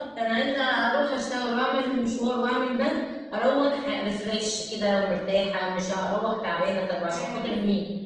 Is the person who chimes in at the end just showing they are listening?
No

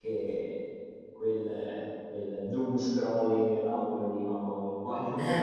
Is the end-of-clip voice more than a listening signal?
No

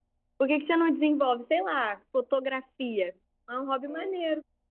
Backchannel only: No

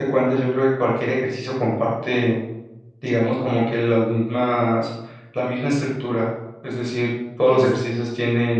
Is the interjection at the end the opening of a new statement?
No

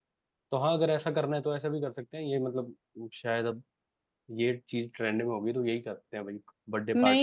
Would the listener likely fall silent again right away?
No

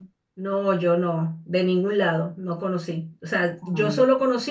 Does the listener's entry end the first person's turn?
No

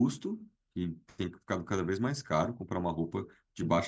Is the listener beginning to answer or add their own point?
No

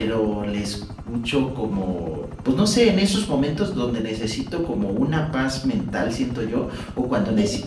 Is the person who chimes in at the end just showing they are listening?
Yes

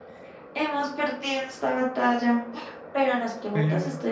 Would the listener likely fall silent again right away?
Yes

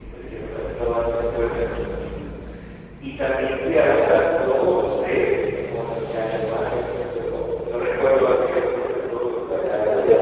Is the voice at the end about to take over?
Yes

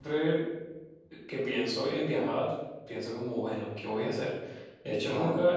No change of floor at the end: Yes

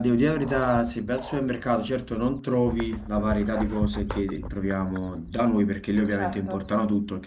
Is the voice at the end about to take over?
No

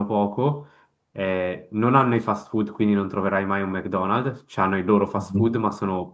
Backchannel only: Yes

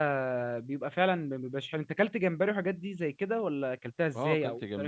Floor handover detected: Yes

